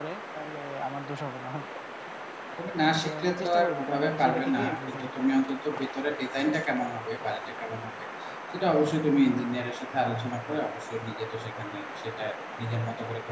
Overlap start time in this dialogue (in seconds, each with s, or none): 2.9 s